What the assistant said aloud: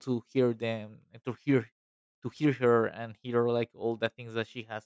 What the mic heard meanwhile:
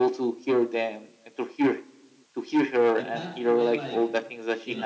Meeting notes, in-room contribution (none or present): present